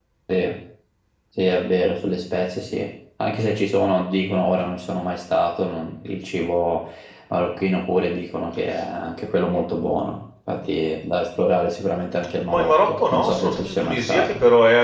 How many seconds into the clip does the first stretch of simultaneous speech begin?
12 s

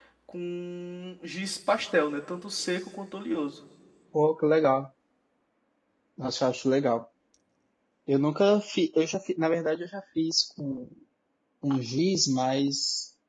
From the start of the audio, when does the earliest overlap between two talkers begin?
none

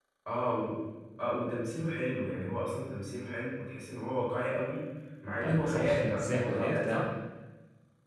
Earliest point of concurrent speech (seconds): 5 s

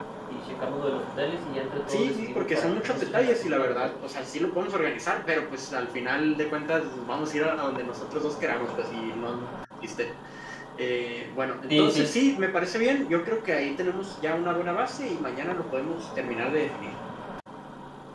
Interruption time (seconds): 2 s

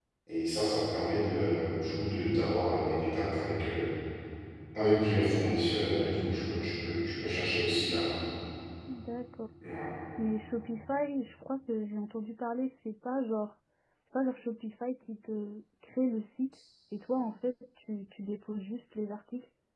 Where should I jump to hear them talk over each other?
none

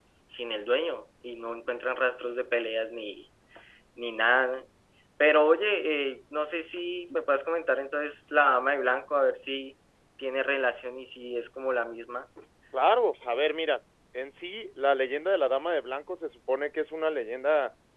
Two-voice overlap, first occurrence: none

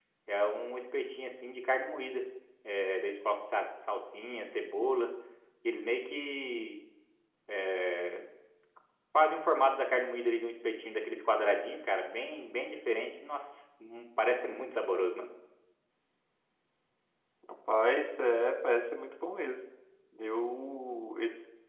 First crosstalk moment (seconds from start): none

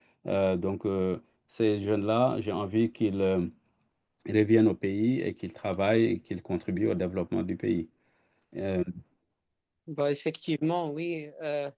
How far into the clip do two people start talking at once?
none

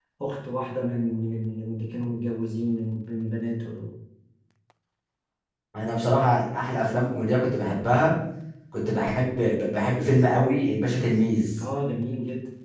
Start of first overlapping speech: none

